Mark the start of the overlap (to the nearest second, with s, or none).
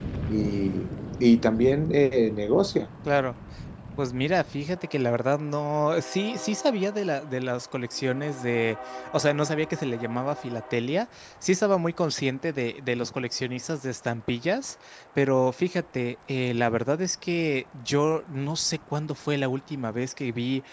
none